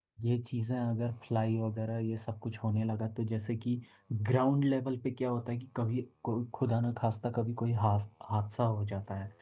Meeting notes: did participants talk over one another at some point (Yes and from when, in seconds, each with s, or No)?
No